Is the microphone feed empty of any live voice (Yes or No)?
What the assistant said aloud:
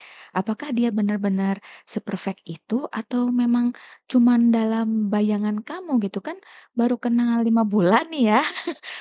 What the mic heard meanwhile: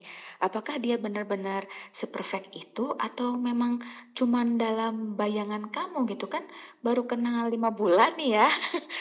Yes